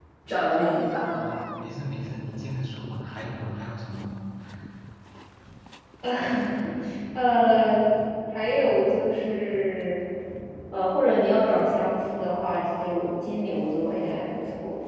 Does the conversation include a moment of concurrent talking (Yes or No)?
No